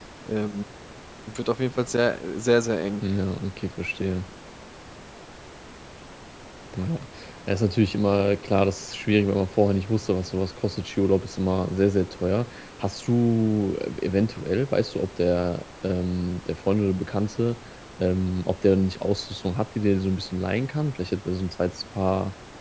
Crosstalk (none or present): none